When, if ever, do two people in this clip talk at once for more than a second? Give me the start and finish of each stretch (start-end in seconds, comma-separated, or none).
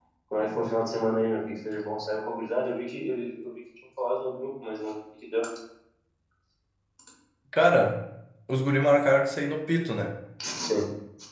none